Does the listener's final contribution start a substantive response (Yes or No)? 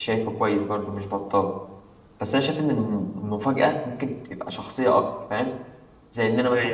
No